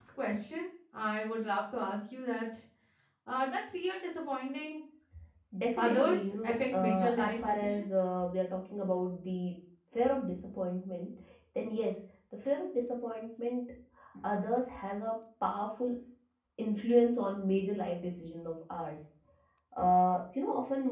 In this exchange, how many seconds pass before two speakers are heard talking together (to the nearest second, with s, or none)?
6 s